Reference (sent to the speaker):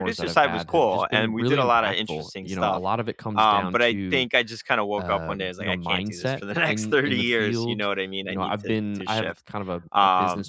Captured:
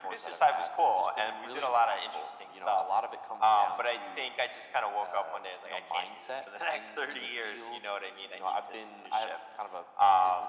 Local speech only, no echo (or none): none